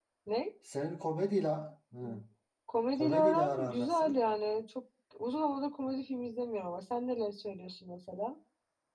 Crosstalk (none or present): present